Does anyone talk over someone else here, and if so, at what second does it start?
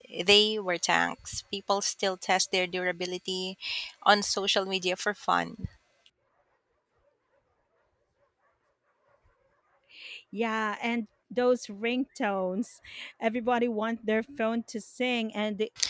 none

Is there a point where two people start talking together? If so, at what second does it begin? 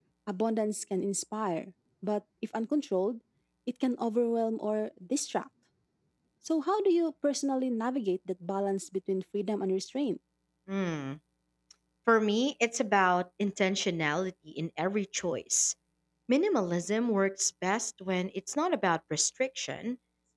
none

